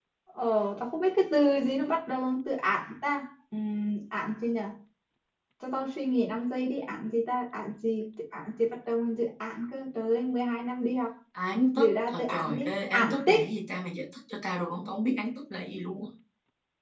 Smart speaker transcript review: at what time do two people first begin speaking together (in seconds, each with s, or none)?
11.8 s